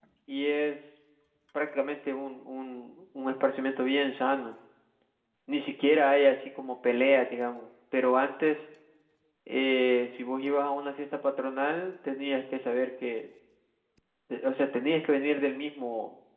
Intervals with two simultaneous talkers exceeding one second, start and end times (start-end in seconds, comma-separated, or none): none